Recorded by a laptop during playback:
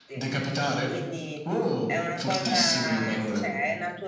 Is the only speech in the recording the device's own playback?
No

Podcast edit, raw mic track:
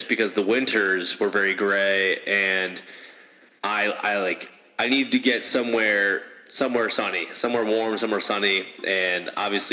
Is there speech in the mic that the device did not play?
No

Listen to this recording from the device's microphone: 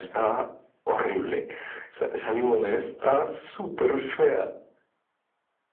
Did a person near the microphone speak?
No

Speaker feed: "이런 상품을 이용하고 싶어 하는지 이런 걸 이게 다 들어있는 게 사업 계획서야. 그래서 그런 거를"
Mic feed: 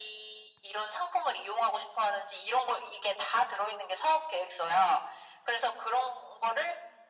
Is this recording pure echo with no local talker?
Yes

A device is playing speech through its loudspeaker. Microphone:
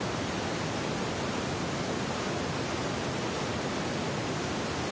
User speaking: No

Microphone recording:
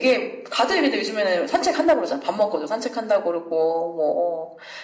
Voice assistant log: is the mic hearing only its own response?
Yes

